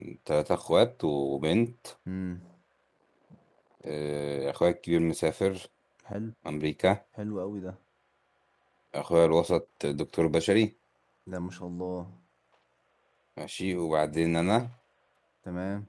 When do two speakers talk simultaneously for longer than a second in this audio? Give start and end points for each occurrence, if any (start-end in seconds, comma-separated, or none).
none